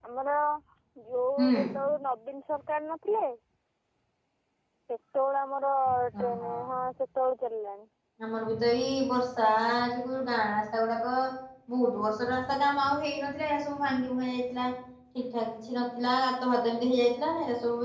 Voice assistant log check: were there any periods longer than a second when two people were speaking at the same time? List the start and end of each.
none

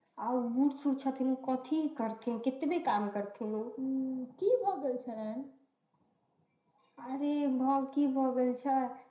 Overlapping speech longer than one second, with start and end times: none

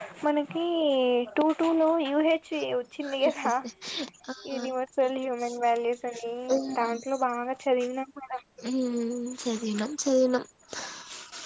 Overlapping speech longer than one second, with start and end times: none

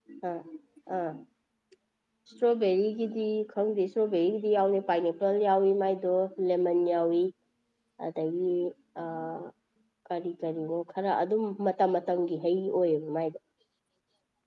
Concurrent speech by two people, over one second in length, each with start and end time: none

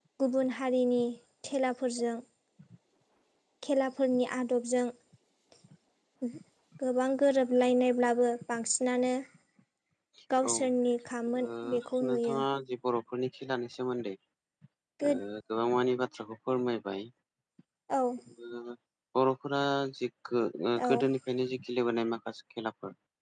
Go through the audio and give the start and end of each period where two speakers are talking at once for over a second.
none

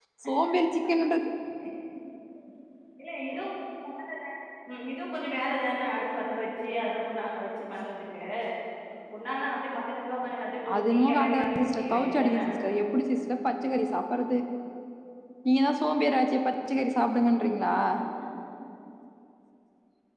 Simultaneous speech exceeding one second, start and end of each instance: 10.8-12.4

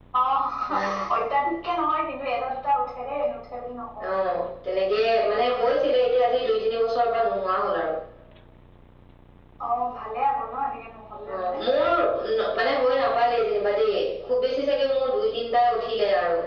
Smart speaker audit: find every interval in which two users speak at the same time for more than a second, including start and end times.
none

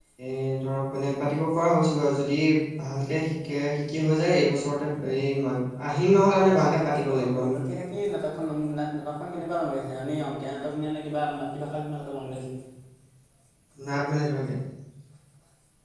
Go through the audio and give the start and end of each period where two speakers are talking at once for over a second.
6.3-7.6

